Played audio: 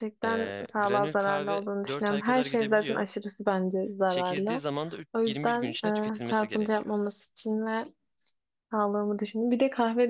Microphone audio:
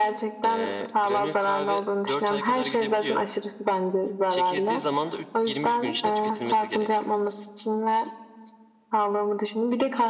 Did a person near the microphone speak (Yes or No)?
No